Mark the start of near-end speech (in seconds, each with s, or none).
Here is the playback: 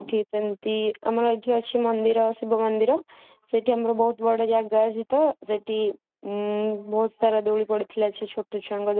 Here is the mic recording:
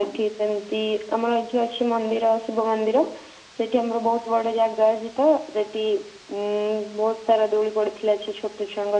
none